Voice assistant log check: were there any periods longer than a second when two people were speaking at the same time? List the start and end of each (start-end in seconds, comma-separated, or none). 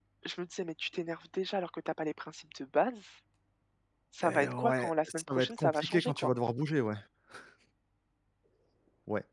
4.2-6.3